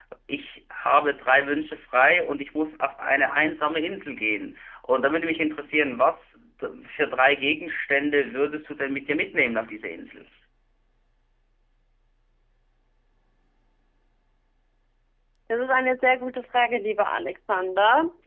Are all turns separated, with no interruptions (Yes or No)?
Yes